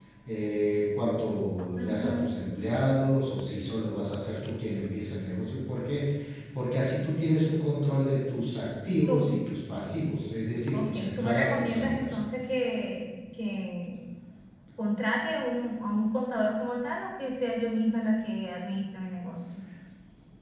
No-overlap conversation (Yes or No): No